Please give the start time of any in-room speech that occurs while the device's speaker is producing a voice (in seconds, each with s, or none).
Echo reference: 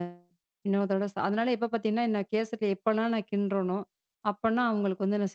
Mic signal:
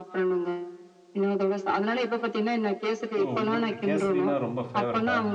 3.2 s